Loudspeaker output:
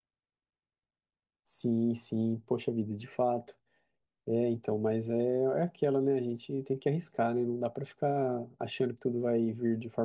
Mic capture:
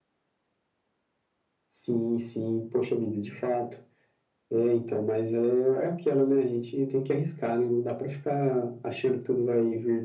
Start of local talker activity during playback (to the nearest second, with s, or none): none